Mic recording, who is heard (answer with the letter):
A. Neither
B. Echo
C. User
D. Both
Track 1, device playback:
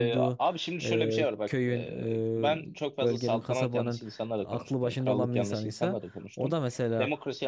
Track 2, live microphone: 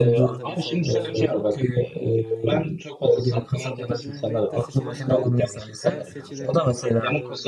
D